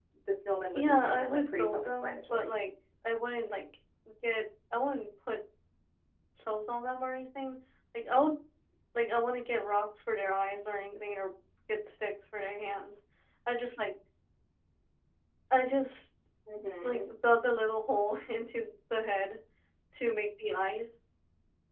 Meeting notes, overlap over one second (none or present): present